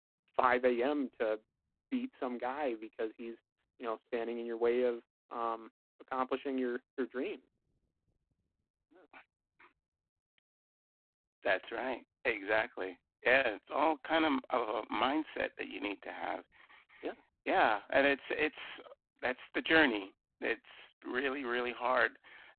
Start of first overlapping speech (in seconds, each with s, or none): none